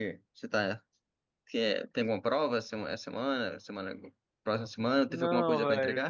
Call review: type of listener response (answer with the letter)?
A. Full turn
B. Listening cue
A